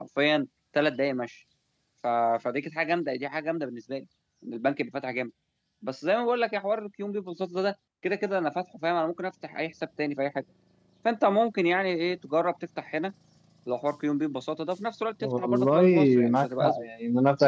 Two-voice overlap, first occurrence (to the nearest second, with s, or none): 15 s